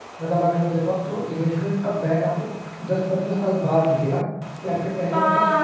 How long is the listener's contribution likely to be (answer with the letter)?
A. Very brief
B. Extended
B